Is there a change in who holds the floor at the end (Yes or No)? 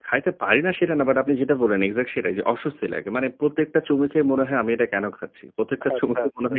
No